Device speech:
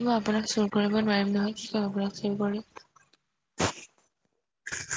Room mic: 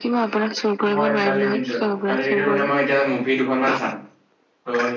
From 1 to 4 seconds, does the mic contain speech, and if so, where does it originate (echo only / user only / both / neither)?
both